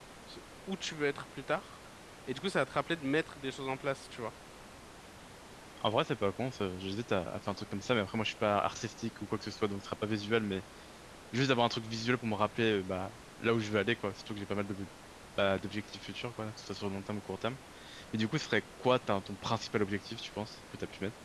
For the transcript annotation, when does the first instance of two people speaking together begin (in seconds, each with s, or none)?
none